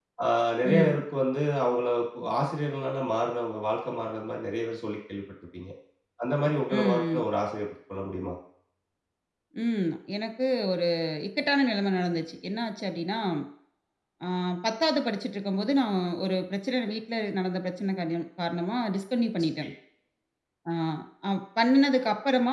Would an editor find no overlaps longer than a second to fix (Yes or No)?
Yes